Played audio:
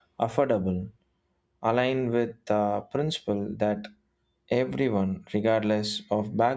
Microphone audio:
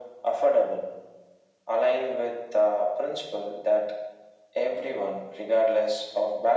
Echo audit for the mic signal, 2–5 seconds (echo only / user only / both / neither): echo only